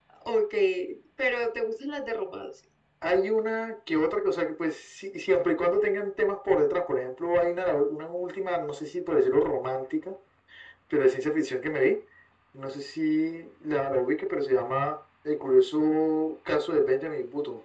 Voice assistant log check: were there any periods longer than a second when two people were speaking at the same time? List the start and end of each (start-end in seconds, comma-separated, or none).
none